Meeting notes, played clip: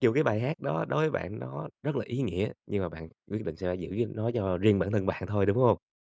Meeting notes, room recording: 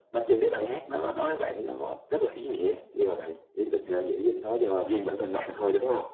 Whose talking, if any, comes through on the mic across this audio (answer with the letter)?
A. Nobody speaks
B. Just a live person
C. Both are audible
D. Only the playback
D